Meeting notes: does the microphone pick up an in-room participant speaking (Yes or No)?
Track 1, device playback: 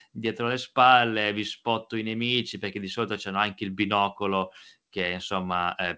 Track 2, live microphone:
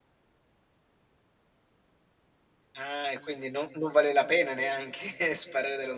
Yes